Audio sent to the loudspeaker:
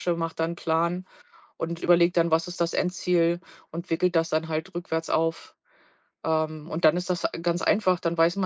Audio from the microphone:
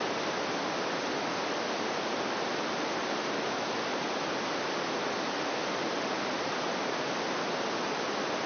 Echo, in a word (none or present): none